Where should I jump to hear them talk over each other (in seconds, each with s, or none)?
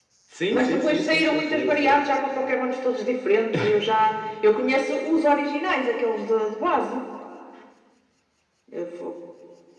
0.5 s